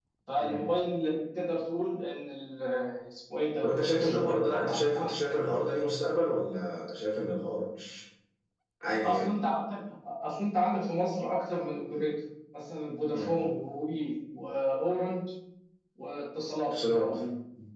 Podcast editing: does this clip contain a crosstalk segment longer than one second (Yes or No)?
Yes